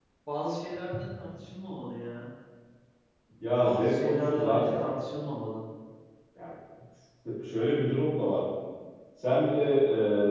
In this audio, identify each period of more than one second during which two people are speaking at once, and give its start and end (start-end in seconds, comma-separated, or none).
3.6-4.9